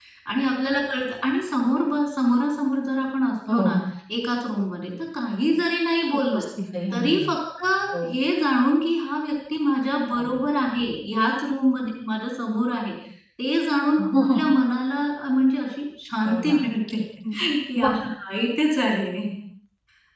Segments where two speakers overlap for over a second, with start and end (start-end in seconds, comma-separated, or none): none